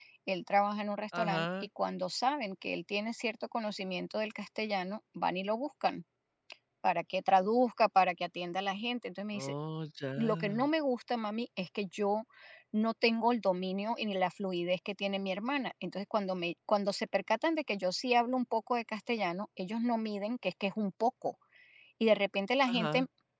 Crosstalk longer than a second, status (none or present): none